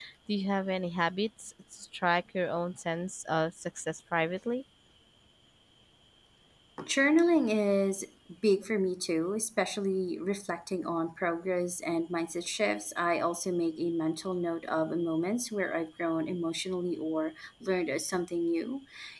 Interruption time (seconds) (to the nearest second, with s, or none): none